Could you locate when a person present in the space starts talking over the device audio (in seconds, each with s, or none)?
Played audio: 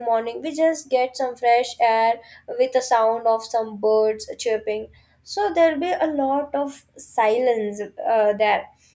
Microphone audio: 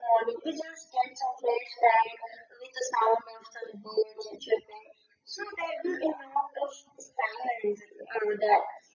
none